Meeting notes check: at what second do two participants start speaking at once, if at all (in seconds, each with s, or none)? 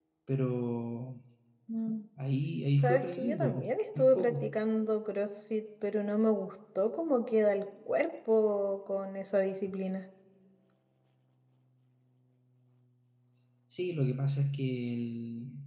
2.8 s